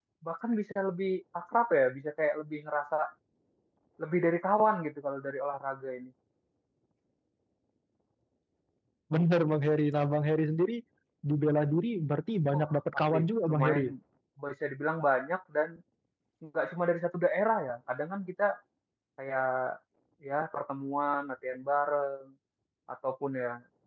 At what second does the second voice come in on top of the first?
12.5 s

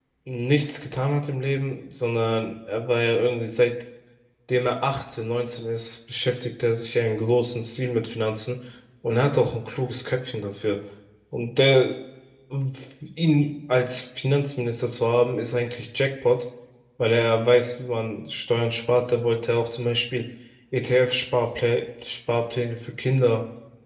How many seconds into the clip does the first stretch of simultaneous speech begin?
none

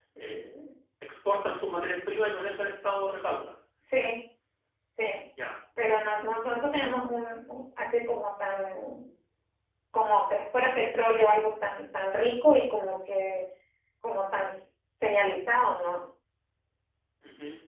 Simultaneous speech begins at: none

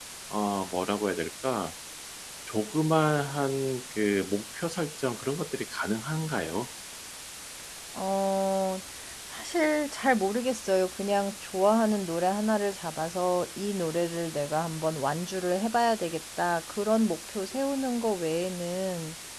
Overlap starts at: none

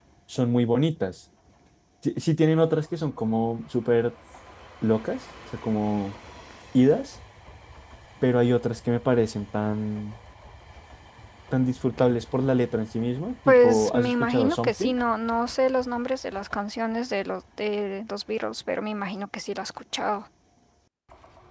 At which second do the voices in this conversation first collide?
13.5 s

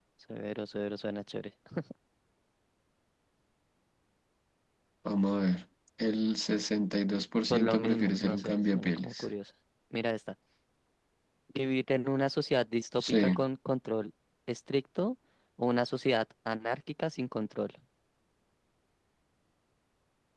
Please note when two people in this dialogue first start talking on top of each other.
7.5 s

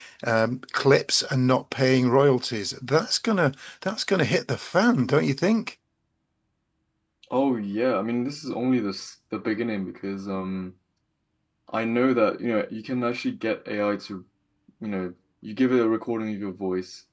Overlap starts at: none

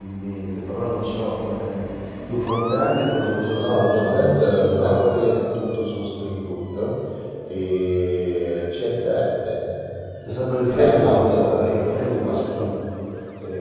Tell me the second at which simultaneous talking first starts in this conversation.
3.6 s

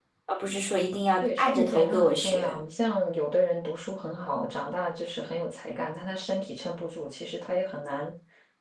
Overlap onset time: 1.2 s

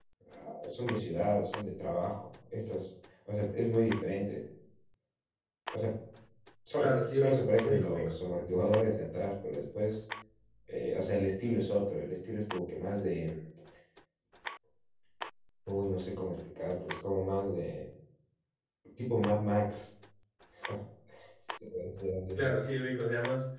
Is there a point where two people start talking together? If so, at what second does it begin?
6.8 s

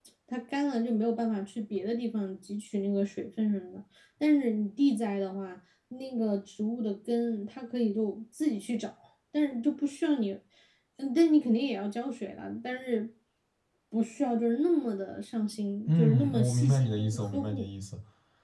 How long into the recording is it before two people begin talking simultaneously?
15.8 s

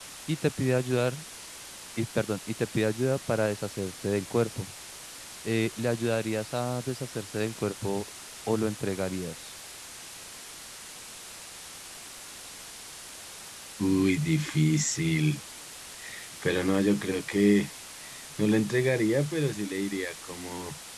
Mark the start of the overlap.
none

